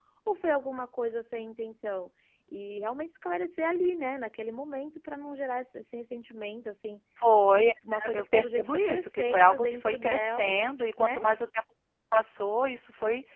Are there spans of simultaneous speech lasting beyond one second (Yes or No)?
Yes